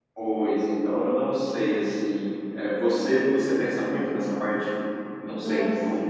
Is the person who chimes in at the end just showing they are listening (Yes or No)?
Yes